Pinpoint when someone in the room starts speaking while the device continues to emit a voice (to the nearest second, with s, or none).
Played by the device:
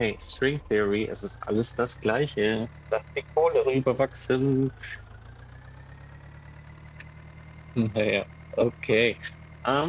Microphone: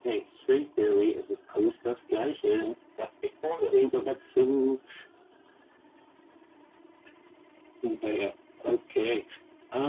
none